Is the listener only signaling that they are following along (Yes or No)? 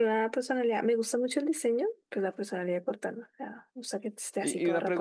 No